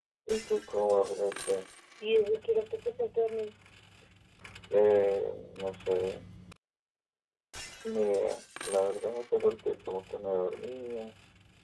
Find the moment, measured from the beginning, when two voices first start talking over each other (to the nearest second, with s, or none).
none